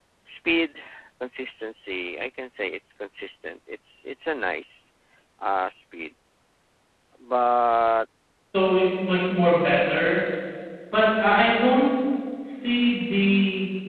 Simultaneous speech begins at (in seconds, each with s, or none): none